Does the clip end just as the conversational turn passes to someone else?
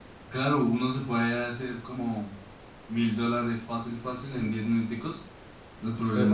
No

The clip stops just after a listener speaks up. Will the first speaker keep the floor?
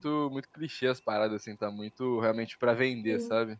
No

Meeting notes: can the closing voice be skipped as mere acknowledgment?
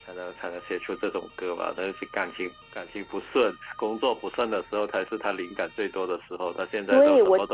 No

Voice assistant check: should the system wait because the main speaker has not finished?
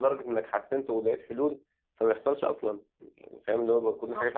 No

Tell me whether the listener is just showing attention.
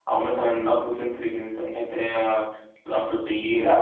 No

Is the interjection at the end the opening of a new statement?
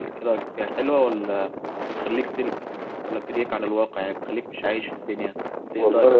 Yes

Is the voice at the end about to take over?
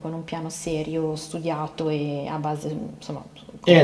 Yes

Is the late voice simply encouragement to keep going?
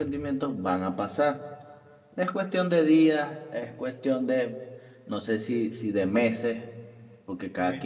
Yes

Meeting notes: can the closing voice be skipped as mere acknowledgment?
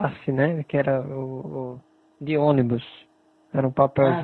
Yes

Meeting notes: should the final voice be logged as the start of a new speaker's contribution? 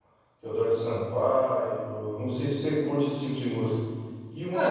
Yes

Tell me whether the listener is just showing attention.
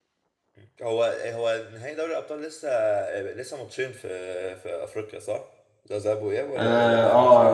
No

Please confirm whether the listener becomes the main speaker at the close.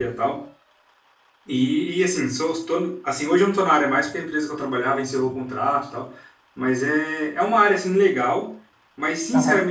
No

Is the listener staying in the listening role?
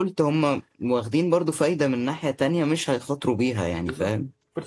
No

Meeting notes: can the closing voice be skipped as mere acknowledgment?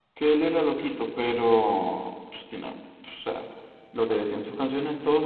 Yes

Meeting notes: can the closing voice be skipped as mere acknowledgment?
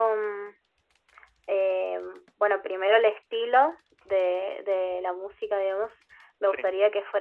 Yes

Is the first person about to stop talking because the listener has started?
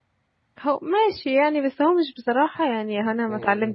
Yes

